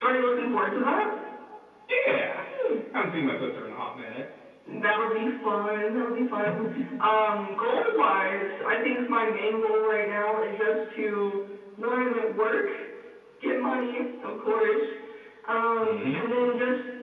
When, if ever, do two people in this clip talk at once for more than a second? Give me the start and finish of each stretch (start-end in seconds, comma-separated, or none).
none